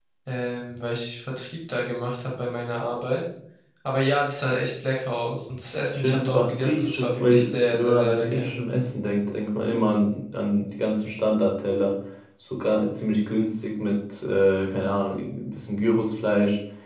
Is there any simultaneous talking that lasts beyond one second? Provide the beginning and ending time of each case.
5.9-8.5

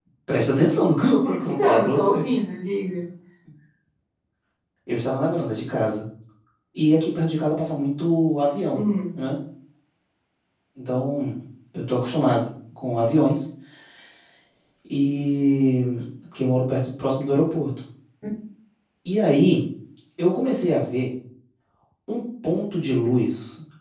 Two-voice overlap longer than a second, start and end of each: 1.0-2.2

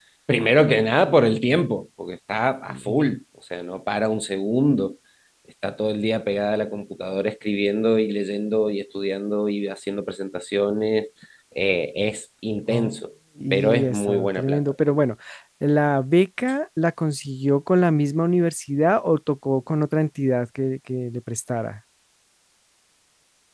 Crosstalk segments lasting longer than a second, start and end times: 13.5-15.0

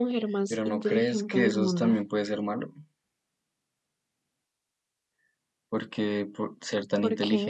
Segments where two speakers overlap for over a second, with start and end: 0.5-2.0

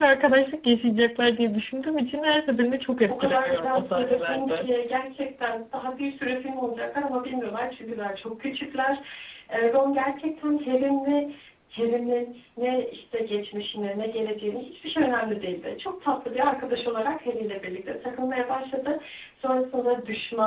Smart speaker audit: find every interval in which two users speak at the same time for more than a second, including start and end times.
3.1-4.7

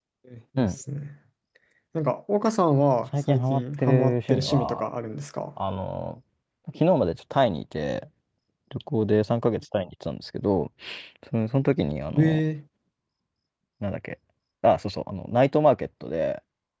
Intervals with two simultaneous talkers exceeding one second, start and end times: 3.3-4.8

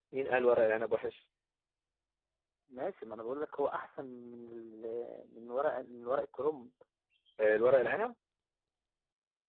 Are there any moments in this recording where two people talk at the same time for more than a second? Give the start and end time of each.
none

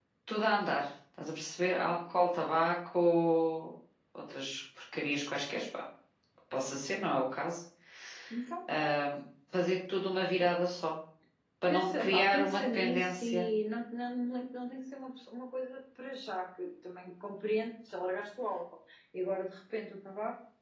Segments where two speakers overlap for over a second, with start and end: 11.7-13.4

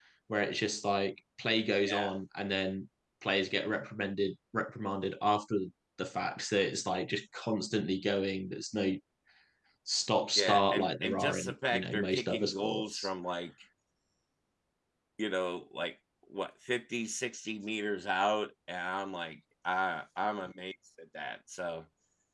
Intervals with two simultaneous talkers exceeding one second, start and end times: 10.4-13.1

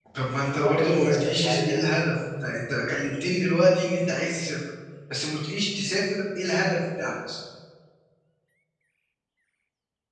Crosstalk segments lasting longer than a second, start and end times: 0.5-2.1

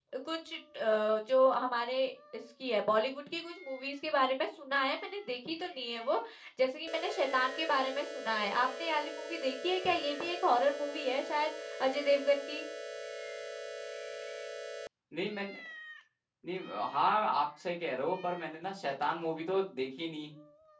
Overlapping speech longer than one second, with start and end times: none

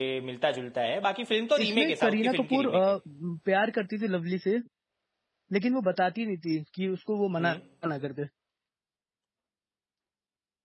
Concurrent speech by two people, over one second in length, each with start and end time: 1.6-2.9

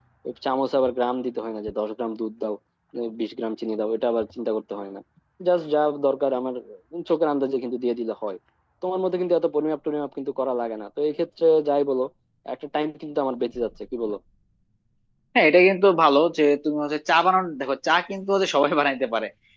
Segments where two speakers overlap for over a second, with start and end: none

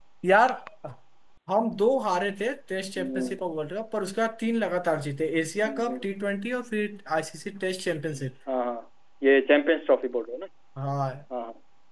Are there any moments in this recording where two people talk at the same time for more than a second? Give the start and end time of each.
none

